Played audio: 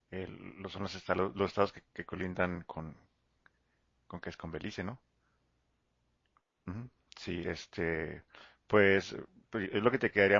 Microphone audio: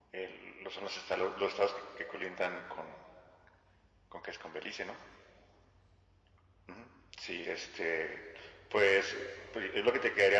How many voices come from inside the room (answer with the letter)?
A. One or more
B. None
B